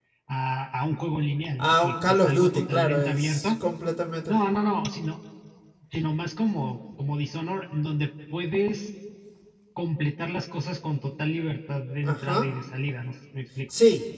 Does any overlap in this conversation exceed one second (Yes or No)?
Yes